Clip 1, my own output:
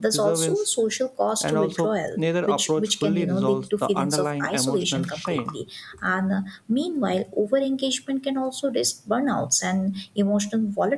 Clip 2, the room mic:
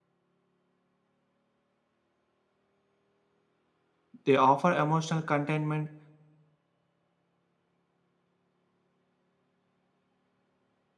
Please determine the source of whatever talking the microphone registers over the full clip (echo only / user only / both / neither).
user only